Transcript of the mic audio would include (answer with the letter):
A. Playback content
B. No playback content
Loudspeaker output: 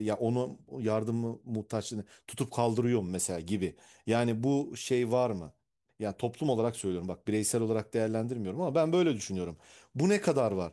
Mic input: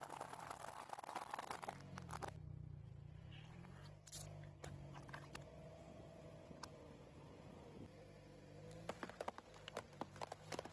B